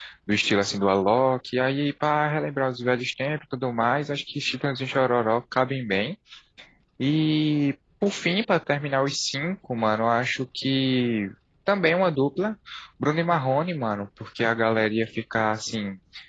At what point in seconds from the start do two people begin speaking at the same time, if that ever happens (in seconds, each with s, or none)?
none